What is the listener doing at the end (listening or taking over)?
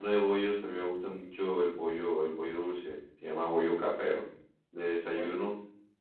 listening